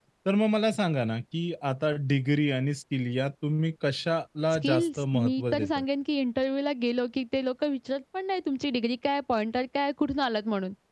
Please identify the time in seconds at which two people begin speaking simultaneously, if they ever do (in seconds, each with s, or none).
4.5 s